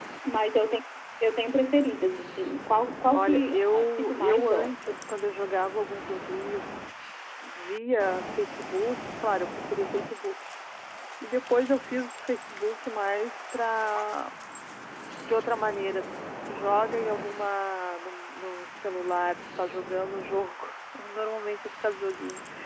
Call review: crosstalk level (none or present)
present